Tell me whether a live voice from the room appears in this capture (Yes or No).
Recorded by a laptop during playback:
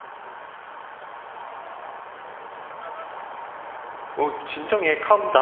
Yes